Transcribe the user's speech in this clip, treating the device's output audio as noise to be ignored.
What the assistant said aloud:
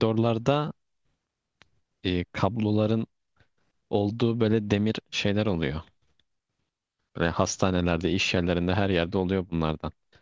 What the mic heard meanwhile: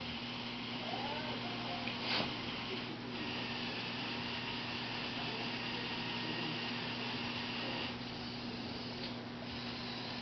none

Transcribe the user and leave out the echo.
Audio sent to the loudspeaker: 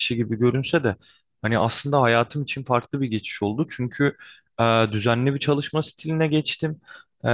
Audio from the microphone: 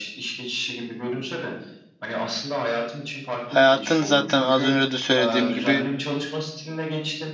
Hayatın zaten az önce de söylediğim gibi

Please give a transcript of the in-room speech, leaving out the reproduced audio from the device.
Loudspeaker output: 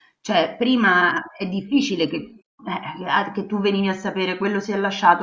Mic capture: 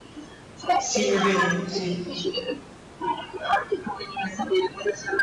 sì, è vero, sì,

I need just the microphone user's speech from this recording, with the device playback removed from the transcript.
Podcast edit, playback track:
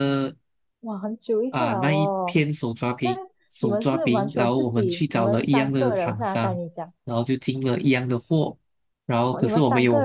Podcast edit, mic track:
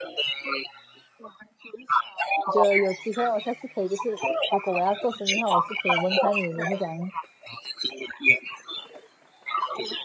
我觉得有机会我下次可以，就是如果我要做生意的话，我也是可以问看你你是怎样，

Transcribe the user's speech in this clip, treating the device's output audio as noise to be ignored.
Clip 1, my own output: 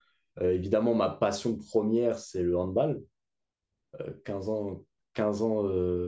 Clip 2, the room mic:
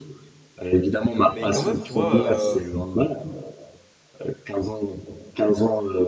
mais quand même, tu vois, euh,

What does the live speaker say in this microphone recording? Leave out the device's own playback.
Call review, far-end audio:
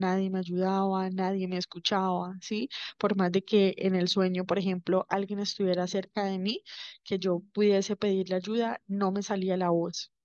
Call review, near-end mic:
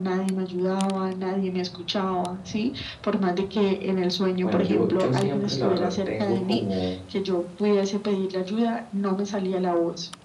bueno, yo, yo siempre, la verdad, tengo como

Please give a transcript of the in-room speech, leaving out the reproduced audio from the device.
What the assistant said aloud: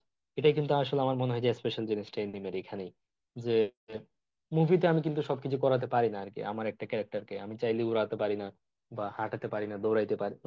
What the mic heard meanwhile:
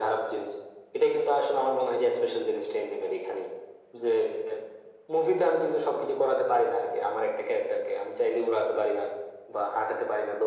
none

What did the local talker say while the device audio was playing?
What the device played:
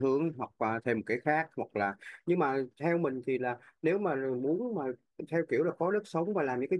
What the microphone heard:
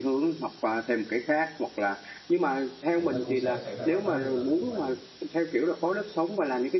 thì nó cũng sẽ xảy ra bài toán tương tự như vậy

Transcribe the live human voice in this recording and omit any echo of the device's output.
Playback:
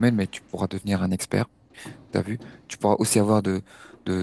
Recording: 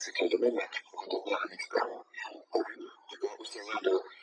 none

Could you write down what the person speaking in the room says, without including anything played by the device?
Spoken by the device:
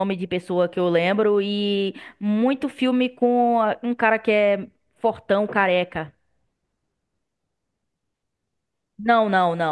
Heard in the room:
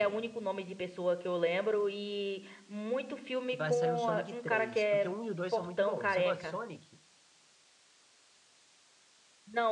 que vai sair o Sonic 3 porque o 1 e o 2 são muito bons. Você gosta de Sonic?

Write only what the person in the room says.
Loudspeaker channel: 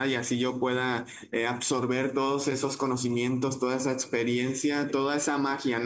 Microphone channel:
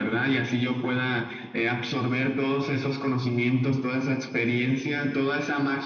none

